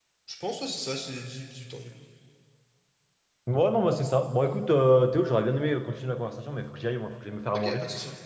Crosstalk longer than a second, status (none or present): none